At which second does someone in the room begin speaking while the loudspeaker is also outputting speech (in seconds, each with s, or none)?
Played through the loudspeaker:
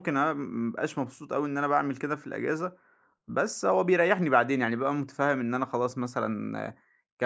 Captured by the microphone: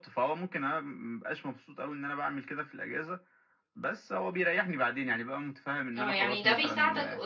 6.0 s